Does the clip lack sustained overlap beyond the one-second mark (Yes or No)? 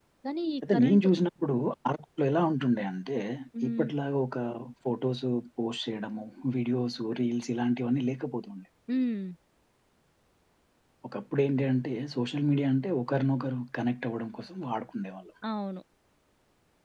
Yes